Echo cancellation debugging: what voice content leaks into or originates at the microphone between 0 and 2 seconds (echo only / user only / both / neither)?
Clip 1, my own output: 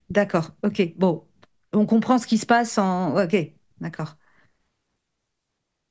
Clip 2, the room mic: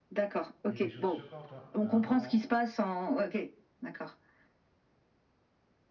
both